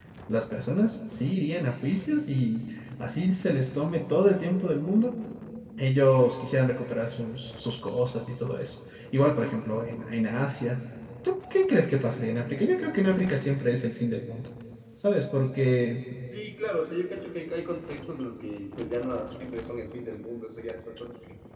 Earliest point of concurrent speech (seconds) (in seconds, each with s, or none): none